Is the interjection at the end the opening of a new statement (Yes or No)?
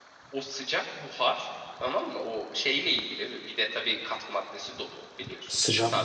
Yes